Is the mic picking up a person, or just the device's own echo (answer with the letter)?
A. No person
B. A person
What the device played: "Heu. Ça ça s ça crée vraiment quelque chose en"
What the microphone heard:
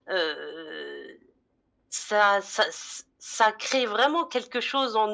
A